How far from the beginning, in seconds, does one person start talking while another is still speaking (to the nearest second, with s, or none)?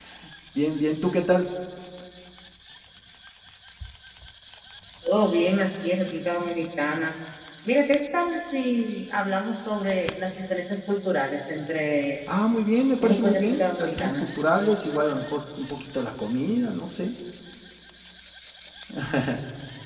13 s